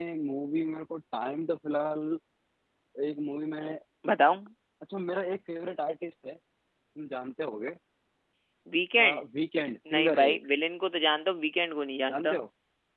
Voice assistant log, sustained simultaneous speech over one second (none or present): none